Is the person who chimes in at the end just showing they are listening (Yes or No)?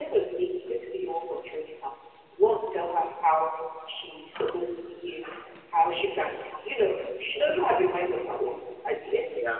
Yes